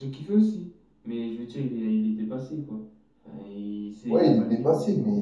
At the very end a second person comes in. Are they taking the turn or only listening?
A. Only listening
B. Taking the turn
B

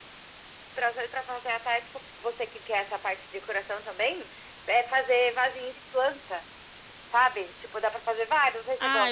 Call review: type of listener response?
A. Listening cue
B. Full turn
B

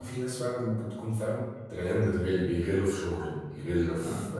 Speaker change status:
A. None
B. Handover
A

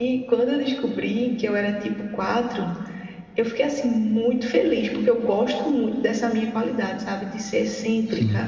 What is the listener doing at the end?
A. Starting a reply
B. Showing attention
B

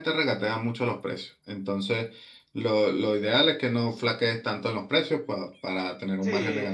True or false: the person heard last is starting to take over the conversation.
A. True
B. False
A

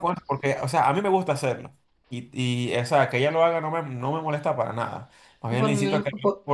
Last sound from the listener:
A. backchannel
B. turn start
B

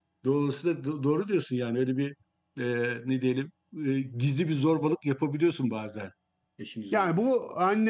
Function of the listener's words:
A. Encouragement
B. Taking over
B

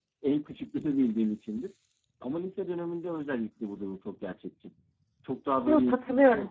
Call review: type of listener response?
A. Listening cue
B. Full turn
B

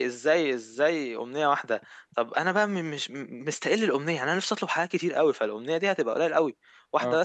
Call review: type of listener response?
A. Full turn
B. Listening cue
B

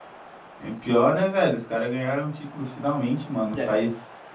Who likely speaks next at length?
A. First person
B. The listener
A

